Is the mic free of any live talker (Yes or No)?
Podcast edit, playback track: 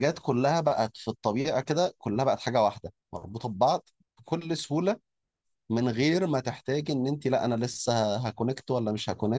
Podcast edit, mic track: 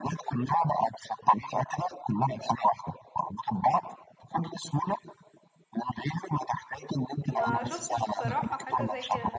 No